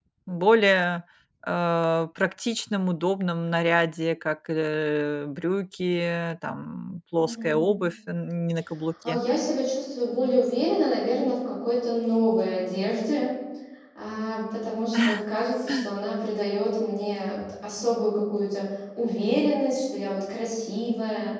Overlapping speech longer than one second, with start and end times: none

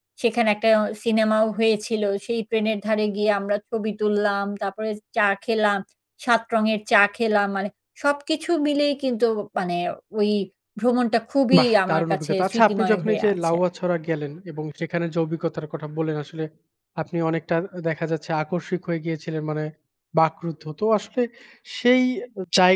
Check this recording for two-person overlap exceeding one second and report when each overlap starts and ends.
11.6-13.5

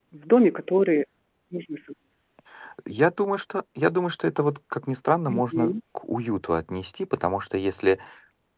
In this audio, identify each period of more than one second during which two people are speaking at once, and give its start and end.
none

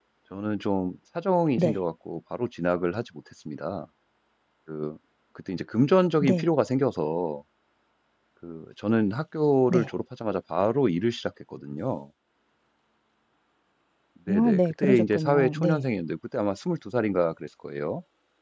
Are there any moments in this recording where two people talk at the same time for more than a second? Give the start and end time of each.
14.3-15.8

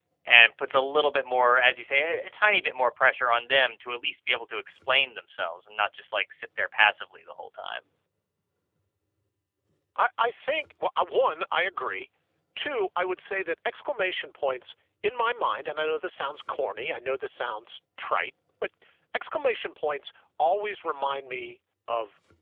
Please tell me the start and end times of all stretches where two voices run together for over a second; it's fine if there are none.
none

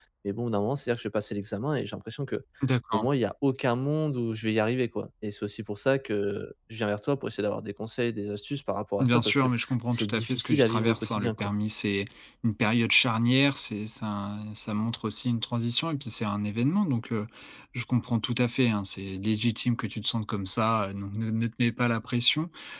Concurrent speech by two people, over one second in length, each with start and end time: 9.9-11.5

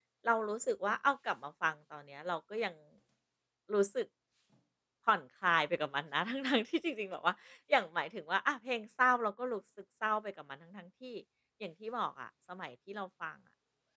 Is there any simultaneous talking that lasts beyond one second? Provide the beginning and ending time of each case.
none

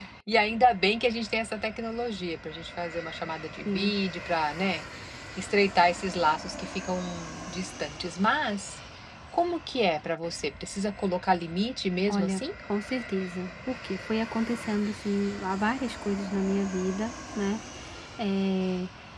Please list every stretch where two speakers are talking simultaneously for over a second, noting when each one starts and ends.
none

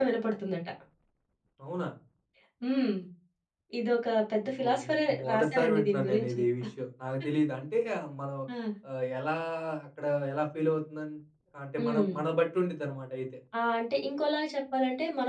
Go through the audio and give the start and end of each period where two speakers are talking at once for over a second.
4.6-6.4

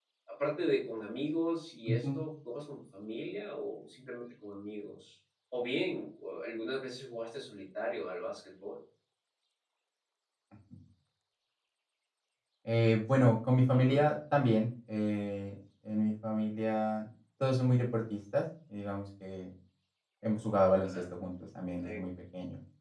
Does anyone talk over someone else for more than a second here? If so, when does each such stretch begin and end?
none

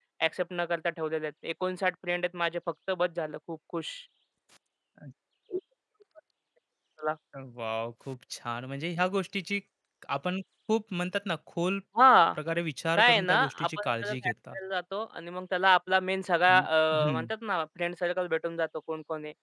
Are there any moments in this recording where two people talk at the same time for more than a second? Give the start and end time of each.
12.9-14.5

